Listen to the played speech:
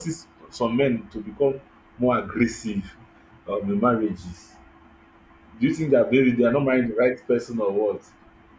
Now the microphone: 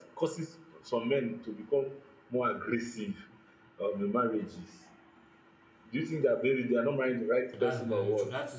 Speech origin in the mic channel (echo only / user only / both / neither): both